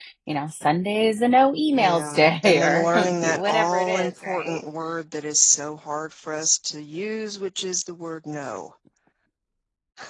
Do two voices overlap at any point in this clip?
Yes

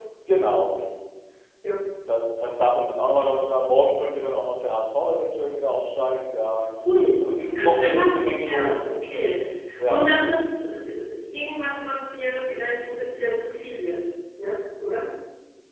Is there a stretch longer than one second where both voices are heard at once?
Yes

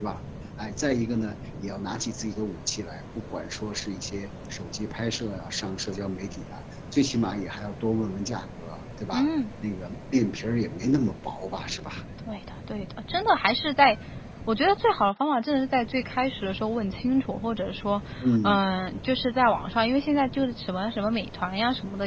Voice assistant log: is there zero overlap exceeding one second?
Yes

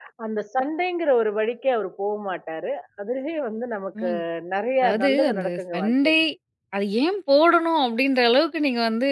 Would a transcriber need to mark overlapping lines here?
Yes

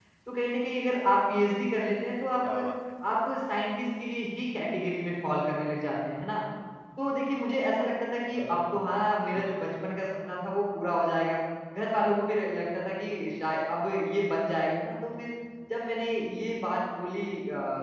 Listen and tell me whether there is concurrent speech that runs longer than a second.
Yes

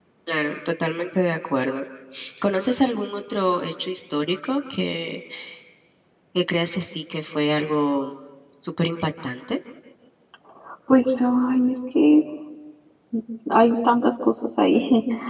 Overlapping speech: No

